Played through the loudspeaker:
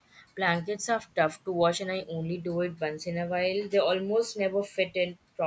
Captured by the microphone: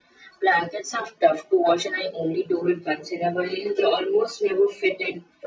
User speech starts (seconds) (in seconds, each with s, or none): none